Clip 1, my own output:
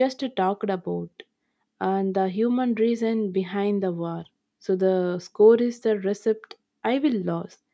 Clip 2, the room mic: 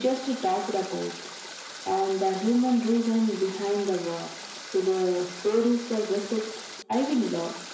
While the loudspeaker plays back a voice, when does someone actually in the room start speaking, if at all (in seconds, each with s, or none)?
none